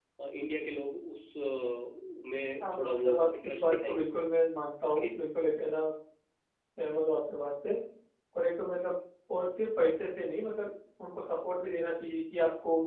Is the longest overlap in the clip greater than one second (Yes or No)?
Yes